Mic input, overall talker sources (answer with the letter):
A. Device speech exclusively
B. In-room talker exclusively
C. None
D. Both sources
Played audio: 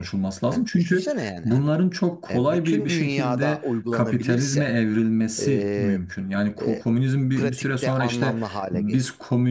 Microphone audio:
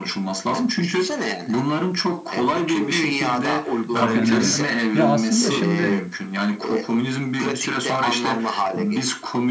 D